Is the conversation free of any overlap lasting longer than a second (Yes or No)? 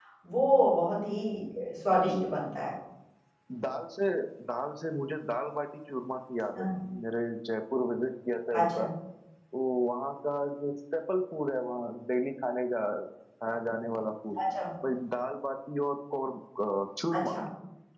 Yes